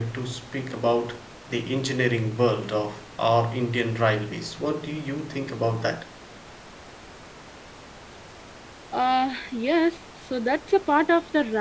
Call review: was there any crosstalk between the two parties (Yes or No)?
No